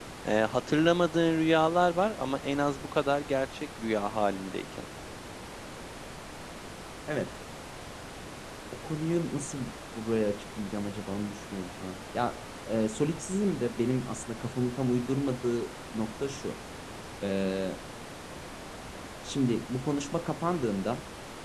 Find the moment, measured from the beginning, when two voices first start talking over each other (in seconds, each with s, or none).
none